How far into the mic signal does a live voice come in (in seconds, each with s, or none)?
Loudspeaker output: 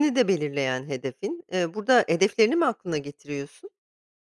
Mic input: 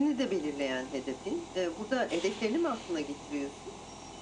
none